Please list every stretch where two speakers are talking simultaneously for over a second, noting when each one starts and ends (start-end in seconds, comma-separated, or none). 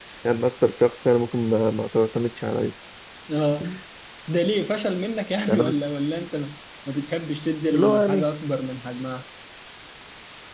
none